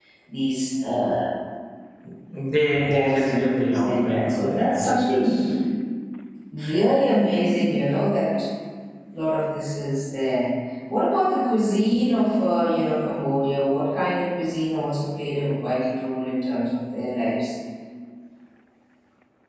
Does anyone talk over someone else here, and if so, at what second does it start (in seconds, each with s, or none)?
2.6 s